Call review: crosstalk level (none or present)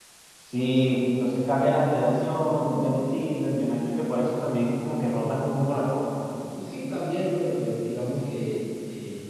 none